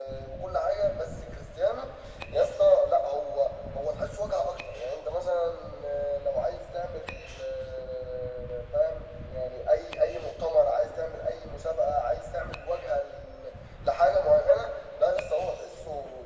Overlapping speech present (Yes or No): No